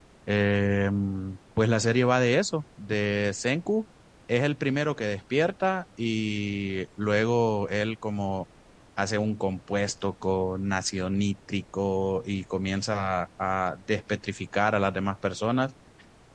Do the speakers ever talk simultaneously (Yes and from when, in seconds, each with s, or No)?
No